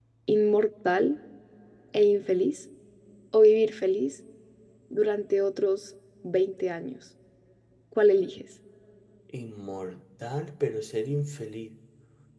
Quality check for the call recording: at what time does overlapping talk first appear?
none

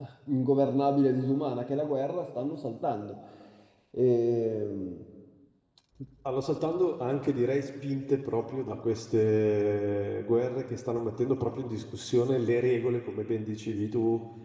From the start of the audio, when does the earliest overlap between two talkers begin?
none

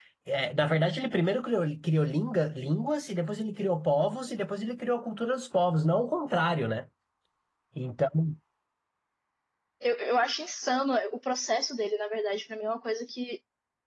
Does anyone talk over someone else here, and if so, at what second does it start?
none

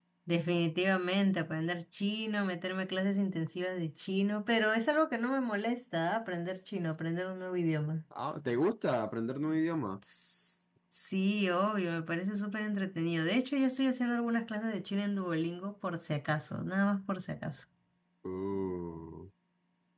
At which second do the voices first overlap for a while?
none

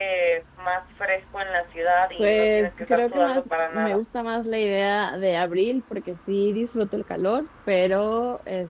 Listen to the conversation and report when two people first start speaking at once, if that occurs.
2.2 s

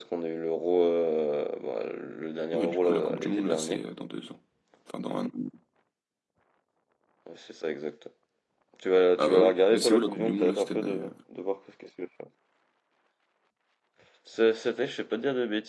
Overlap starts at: 2.5 s

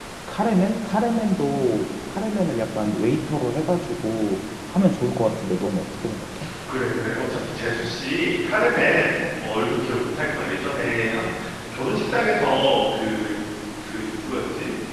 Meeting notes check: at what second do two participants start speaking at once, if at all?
none

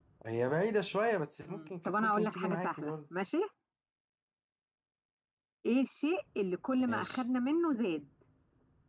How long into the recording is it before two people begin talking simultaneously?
1.5 s

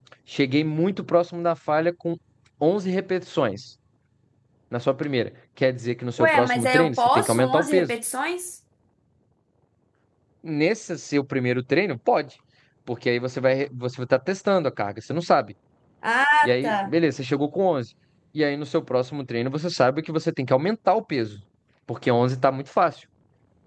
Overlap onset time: 6.2 s

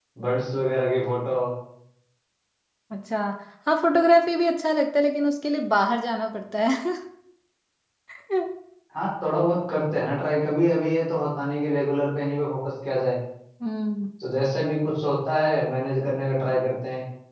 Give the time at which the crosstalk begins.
none

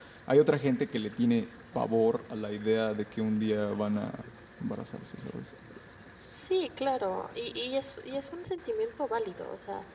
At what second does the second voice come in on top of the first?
none

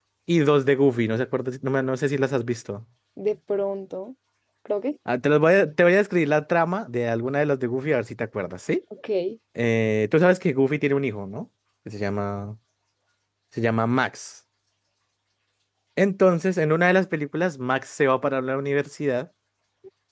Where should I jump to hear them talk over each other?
none

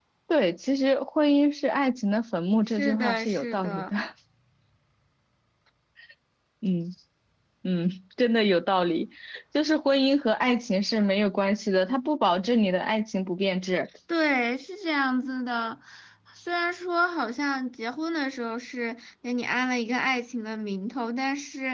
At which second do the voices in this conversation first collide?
2.7 s

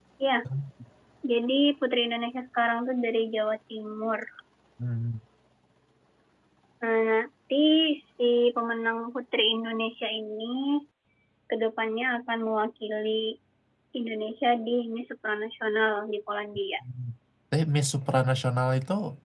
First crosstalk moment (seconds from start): none

